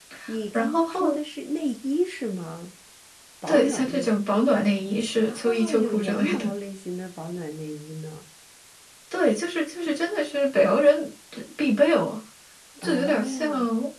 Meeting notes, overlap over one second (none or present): present